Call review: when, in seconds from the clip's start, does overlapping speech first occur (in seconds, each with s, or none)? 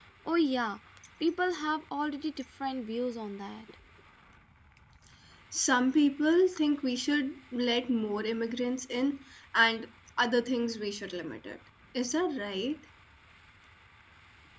none